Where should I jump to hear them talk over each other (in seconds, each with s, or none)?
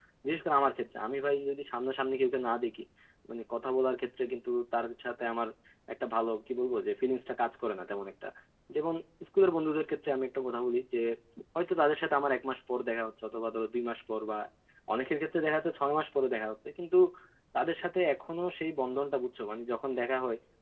none